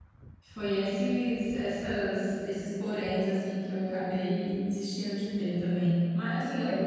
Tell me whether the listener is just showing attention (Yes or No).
Yes